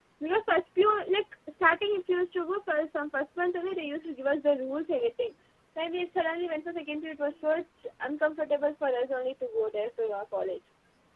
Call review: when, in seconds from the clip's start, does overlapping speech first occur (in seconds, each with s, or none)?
none